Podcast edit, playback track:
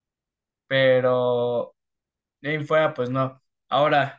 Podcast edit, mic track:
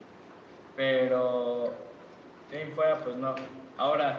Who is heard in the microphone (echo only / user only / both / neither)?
echo only